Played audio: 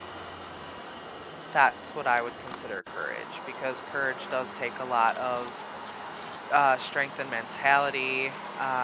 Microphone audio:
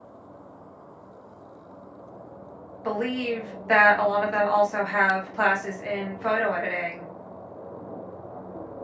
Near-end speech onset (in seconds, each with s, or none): 2.8 s